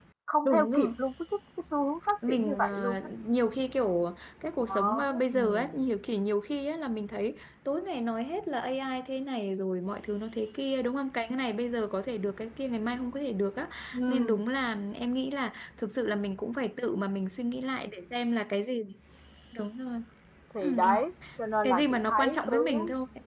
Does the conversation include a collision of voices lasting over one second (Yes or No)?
Yes